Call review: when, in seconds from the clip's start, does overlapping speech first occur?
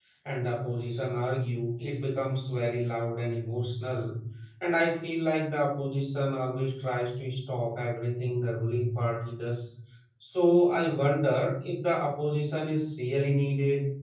none

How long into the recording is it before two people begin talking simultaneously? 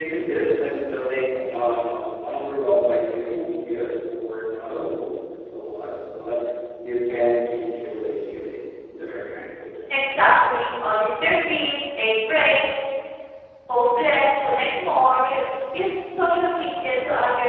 none

